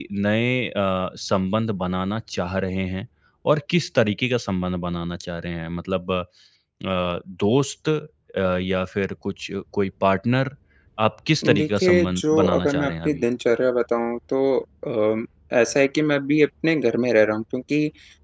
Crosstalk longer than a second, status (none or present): present